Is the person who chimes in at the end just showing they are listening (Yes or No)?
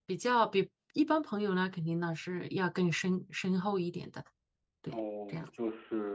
No